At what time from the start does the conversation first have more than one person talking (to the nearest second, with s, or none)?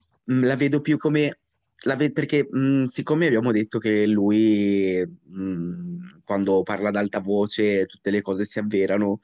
none